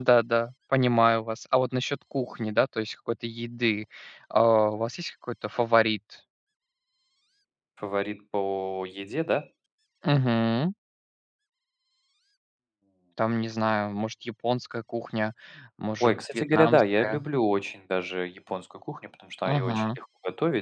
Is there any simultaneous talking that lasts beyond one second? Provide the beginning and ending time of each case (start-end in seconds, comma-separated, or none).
16.0-17.2